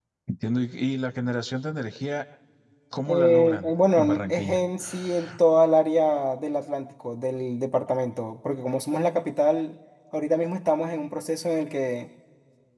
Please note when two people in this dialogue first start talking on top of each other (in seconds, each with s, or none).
3.1 s